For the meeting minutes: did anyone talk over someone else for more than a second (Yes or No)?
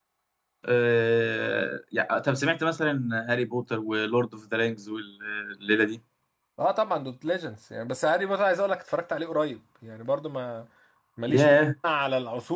No